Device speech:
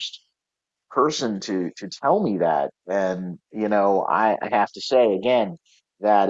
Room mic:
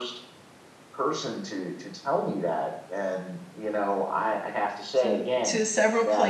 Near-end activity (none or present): present